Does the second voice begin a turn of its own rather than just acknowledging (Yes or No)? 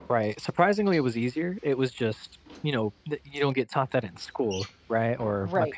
Yes